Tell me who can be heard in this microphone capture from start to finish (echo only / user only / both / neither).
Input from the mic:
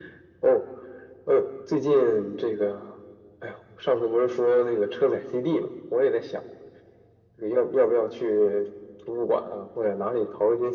echo only